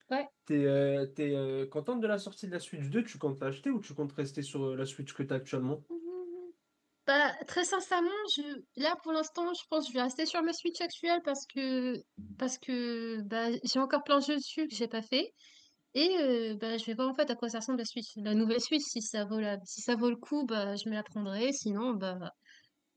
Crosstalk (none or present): none